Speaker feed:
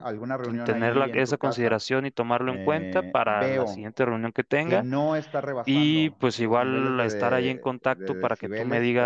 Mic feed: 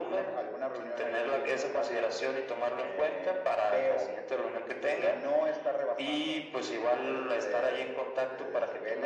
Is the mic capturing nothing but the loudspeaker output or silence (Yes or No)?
Yes